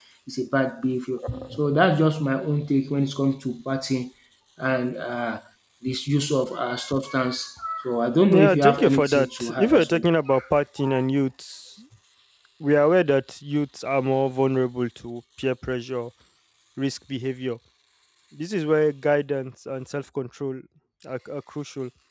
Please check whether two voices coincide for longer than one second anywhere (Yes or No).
Yes